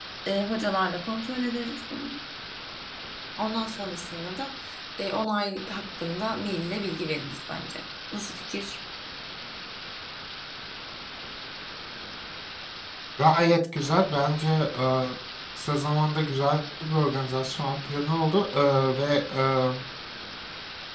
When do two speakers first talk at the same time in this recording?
none

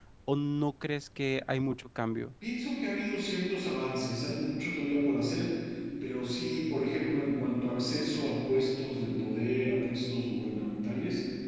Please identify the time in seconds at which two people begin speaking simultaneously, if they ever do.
none

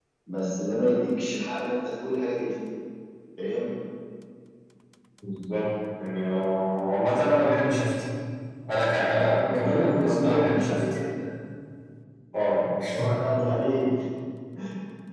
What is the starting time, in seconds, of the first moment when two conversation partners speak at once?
9.3 s

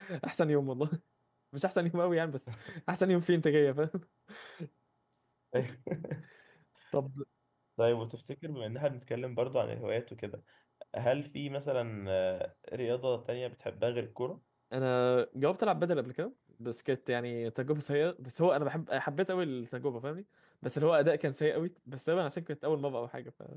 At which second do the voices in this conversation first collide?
none

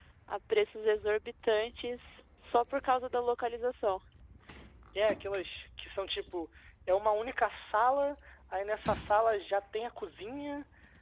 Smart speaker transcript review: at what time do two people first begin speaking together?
none

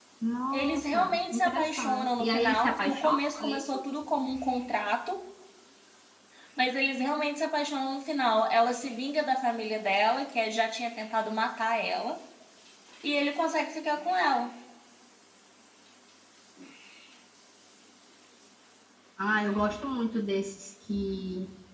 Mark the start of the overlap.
0.5 s

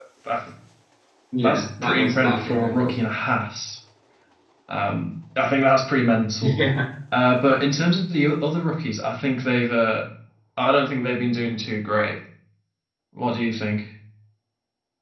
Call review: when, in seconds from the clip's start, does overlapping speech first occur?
1.4 s

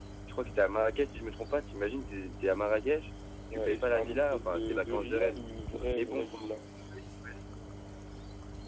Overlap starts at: 3.5 s

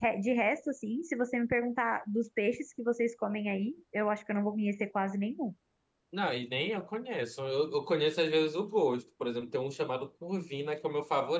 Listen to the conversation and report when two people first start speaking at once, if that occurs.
none

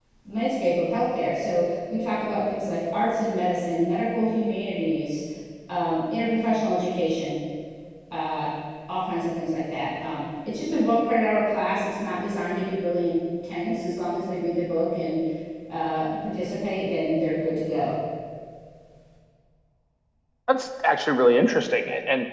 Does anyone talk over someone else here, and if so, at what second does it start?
none

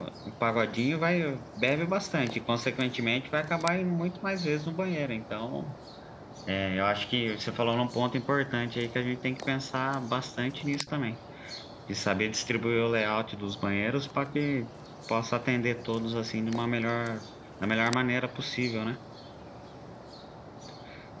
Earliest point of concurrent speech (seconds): none

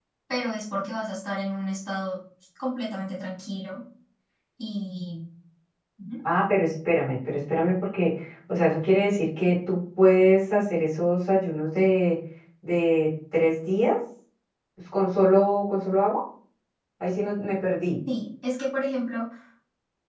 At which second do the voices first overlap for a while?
none

